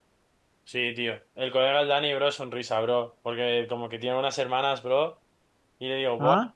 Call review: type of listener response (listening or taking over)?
listening